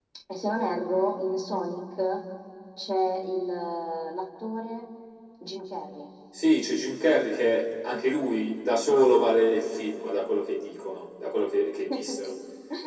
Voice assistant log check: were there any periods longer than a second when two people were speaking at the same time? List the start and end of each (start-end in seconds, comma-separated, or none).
none